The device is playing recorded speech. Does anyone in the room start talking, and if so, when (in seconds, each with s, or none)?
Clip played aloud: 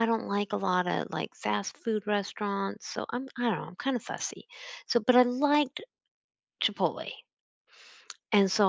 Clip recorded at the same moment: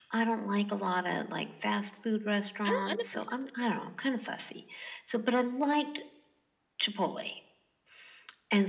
2.6 s